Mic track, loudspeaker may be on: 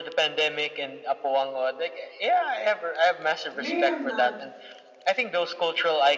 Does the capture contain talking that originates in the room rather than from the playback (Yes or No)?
Yes